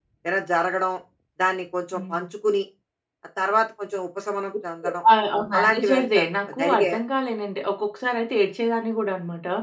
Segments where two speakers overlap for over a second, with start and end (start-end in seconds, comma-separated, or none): 5.6-7.0